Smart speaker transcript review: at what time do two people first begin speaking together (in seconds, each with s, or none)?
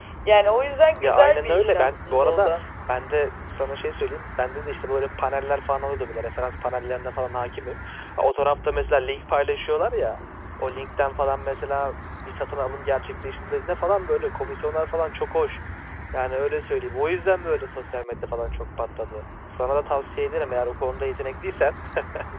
1.0 s